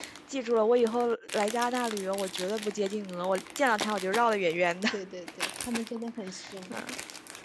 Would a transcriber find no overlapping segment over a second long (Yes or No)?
Yes